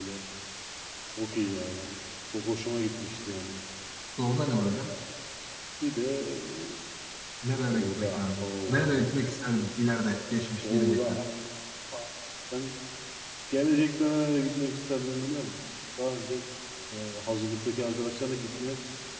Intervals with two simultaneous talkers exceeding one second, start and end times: 7.7-9.1

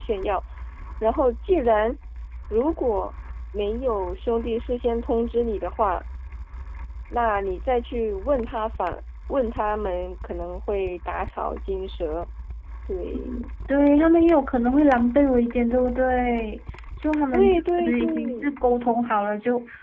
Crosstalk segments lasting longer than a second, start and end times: 17.3-18.6

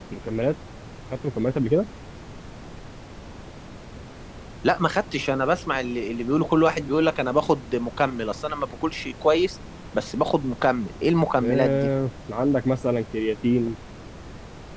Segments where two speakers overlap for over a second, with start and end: none

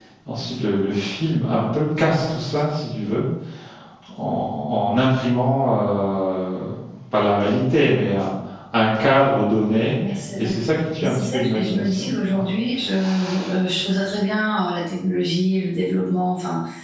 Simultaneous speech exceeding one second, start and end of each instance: 11.0-12.4

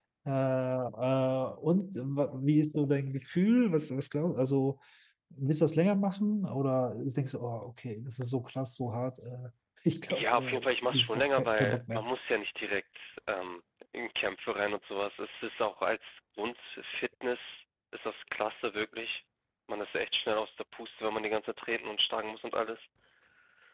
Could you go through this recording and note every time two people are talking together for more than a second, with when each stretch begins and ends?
10.1-12.0

